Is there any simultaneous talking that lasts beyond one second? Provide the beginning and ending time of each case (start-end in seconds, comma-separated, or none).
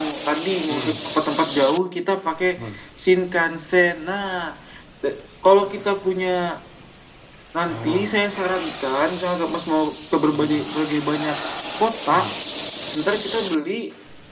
none